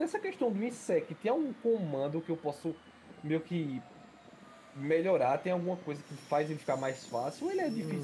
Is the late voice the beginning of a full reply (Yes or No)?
Yes